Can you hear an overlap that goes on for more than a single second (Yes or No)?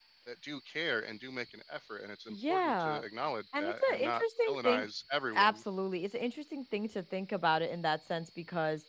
Yes